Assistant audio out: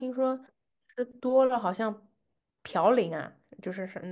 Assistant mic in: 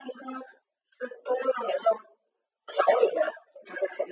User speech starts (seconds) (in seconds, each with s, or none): none